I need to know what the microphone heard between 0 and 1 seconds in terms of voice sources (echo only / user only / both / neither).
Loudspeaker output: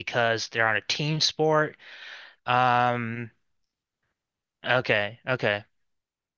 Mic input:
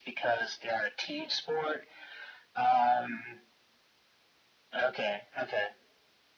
echo only